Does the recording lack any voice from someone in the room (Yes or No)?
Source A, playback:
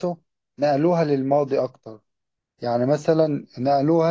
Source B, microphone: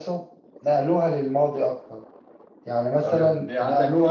No